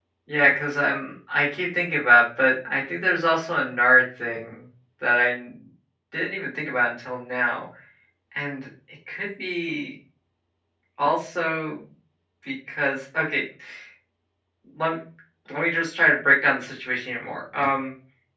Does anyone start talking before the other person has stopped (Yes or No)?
No